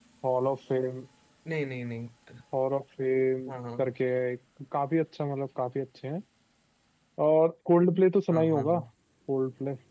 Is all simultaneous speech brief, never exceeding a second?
Yes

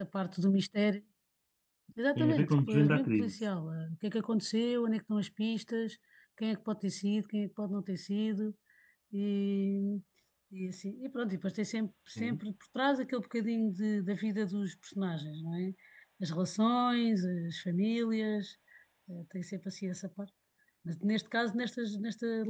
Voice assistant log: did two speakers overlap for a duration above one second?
Yes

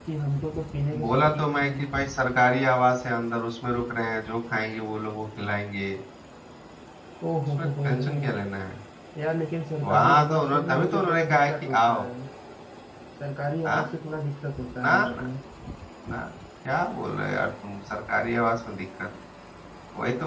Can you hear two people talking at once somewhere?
Yes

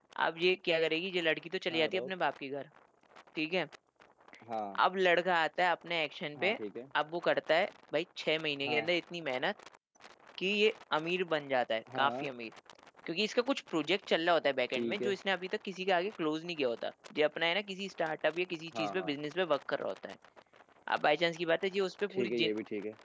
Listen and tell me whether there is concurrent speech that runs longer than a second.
No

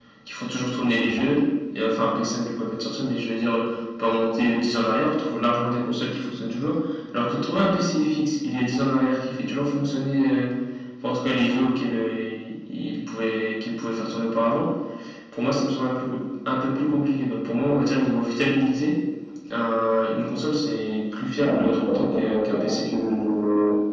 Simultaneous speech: Yes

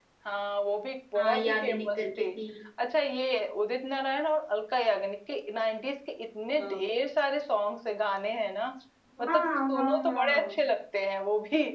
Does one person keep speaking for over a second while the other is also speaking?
Yes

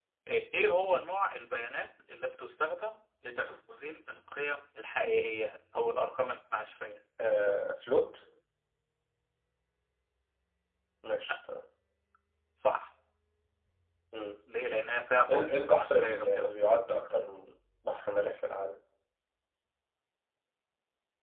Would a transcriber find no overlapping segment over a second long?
No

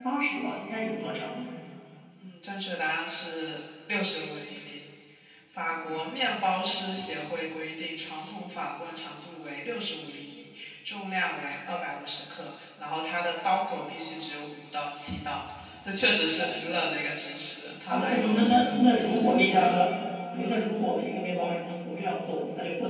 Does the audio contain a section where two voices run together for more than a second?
Yes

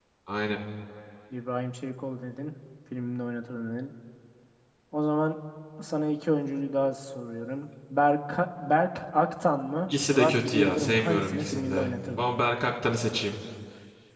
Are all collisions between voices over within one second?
No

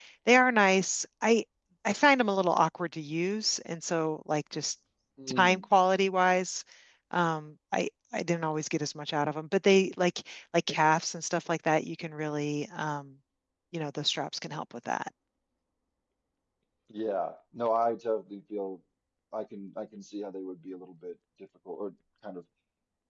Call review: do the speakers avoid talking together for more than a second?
Yes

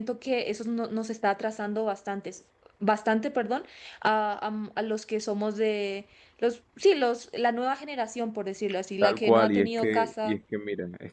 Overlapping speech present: Yes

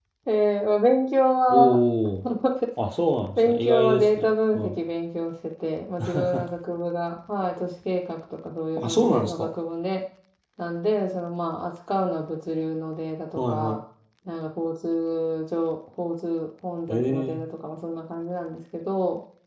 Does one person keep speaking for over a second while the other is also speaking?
Yes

